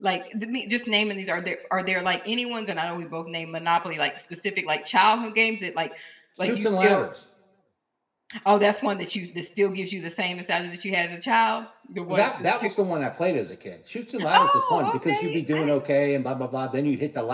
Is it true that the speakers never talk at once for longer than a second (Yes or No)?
No